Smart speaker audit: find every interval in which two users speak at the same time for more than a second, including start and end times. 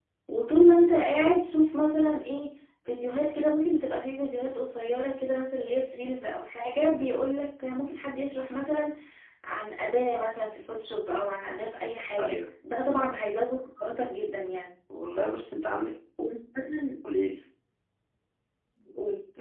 none

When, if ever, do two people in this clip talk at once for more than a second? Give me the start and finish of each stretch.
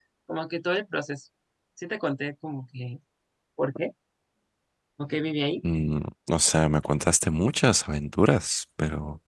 none

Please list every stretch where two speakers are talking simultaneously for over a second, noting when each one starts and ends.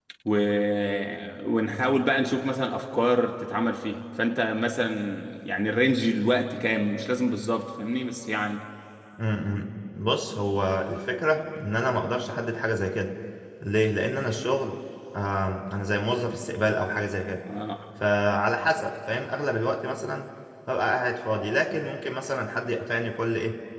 none

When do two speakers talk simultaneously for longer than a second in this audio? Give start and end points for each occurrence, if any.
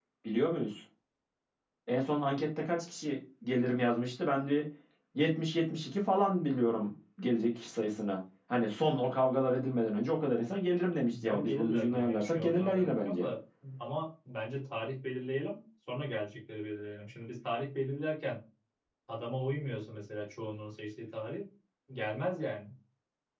11.2-13.3

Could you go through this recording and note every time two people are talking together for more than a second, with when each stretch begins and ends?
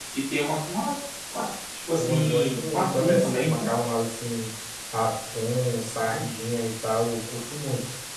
2.0-3.7

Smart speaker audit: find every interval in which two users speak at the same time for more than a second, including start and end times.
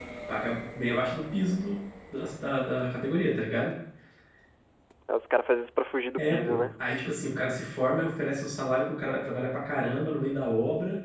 none

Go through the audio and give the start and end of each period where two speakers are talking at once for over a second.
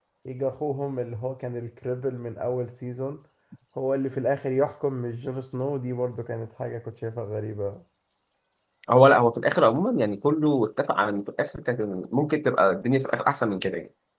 none

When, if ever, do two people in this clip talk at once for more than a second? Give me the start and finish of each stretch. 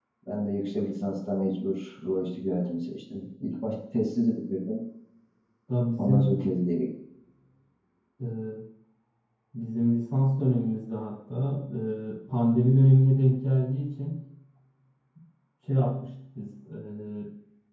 none

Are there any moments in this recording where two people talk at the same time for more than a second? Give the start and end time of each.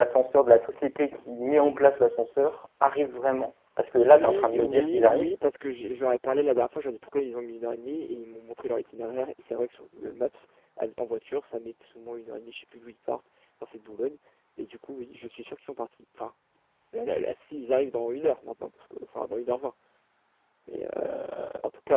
4.0-5.3

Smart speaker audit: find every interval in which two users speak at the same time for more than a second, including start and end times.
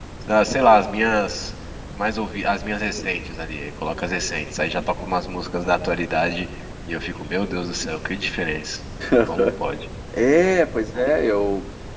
none

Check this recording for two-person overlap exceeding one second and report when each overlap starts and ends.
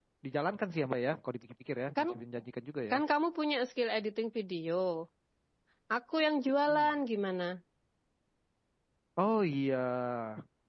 none

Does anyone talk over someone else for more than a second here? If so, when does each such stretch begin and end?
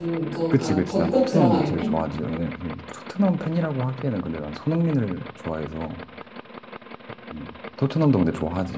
0.5-1.9

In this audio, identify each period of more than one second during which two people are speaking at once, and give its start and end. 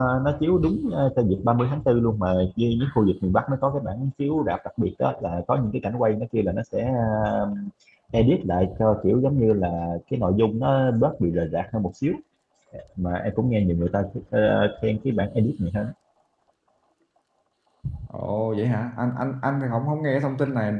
none

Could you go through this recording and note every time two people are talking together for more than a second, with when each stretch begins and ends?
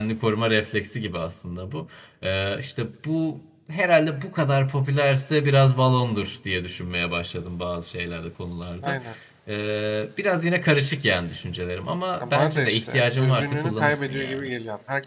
12.2-14.5

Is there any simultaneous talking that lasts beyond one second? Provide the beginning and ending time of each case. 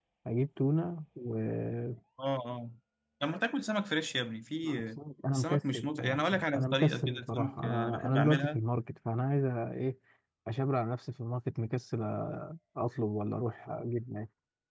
5.3-8.6

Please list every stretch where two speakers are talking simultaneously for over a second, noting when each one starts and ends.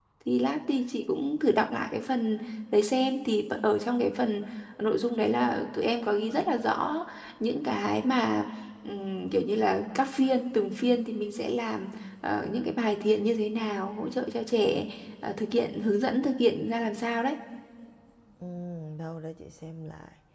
none

